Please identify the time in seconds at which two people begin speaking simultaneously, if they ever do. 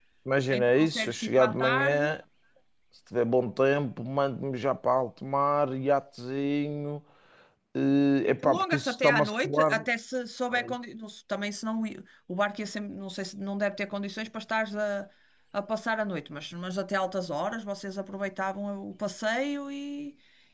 0.5 s

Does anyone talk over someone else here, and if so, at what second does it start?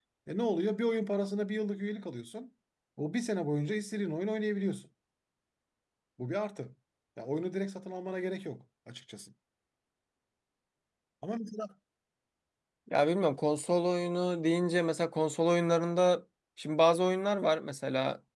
none

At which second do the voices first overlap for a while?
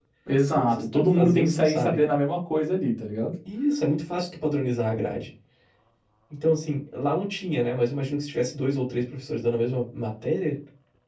0.5 s

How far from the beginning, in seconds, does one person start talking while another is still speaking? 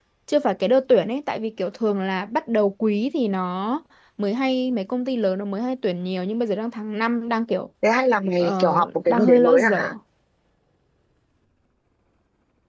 8.4 s

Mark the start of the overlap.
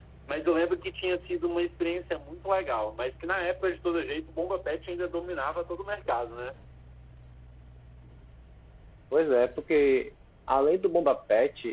none

